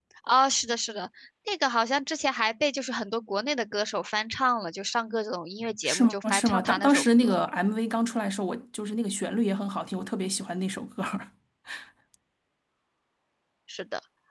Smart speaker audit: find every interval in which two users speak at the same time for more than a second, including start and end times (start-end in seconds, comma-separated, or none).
5.8-7.3